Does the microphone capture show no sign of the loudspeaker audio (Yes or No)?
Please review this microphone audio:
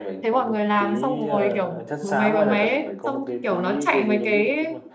No